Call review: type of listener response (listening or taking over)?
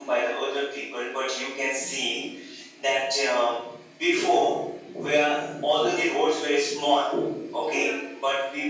listening